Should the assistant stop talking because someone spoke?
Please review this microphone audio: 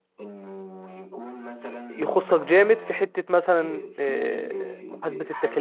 Yes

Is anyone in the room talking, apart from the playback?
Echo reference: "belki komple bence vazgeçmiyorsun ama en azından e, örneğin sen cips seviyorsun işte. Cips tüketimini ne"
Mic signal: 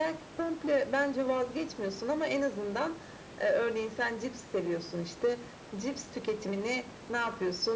No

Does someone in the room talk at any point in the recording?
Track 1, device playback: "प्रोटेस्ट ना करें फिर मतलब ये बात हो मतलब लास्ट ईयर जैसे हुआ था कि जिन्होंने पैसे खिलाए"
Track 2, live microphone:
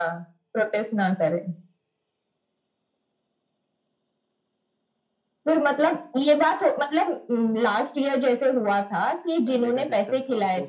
Yes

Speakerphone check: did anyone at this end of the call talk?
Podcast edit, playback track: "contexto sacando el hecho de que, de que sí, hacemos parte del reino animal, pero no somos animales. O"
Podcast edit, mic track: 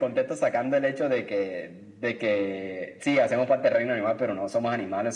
No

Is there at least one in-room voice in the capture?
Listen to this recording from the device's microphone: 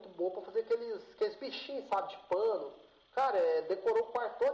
No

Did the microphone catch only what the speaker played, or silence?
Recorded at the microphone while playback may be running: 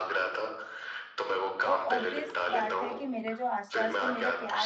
No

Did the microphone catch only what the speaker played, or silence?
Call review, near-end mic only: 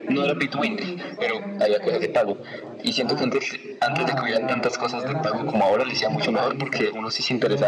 No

